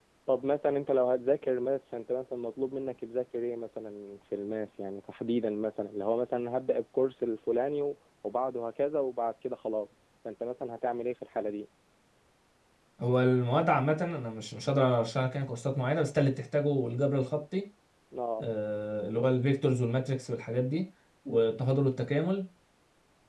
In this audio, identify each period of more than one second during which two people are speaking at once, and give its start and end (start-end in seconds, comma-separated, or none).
none